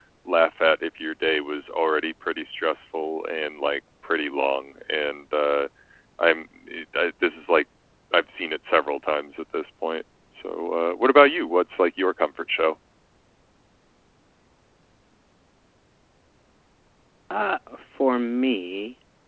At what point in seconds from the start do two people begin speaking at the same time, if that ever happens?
none

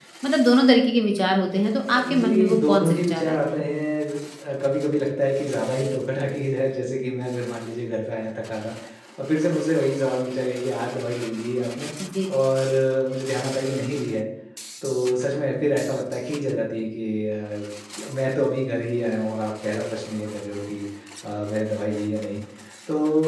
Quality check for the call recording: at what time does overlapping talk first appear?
1.9 s

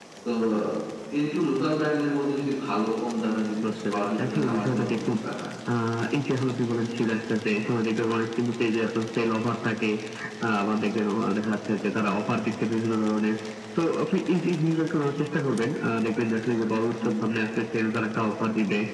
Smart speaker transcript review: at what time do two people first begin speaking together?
3.6 s

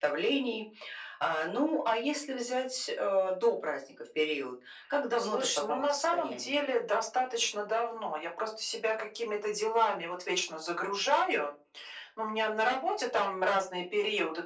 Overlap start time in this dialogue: 5.2 s

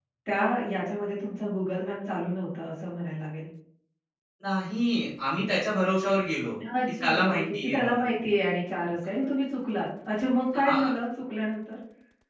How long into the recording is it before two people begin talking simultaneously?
6.8 s

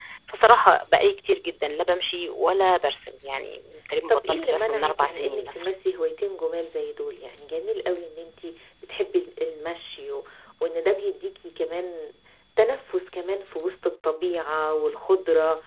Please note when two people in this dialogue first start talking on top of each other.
4.1 s

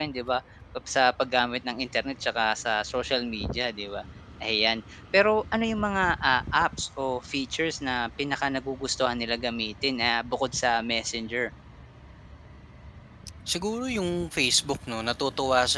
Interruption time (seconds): none

